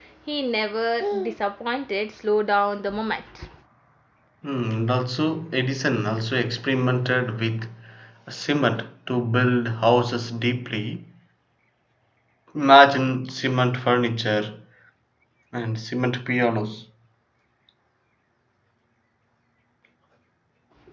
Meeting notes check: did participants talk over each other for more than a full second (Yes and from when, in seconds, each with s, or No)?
No